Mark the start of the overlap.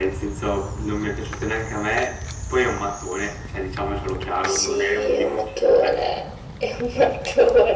4.4 s

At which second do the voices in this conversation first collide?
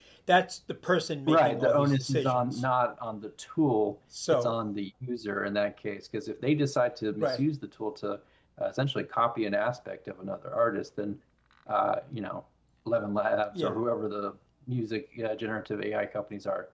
1.3 s

